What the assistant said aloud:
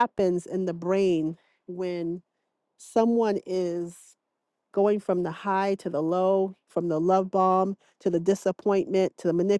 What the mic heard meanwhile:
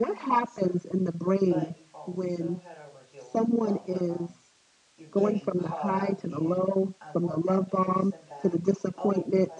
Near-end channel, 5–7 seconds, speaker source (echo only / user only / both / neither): both